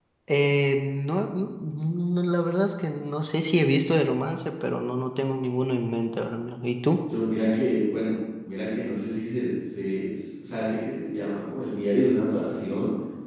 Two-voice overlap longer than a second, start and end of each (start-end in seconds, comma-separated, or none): none